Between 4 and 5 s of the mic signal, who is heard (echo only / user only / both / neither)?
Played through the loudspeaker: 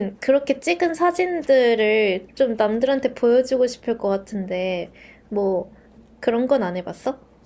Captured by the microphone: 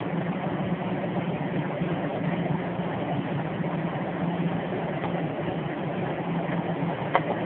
neither